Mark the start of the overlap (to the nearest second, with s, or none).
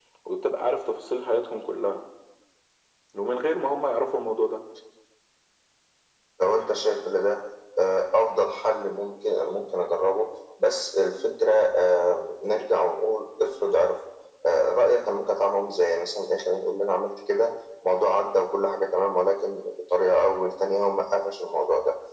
none